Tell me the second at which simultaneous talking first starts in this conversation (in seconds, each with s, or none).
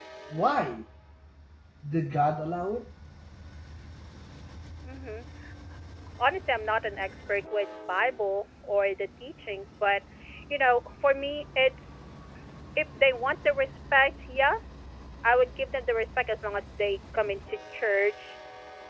none